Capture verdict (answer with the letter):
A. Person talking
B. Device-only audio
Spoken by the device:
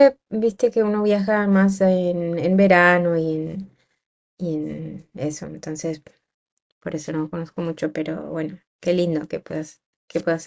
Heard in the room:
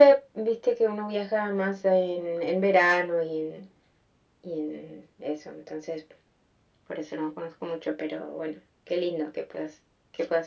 B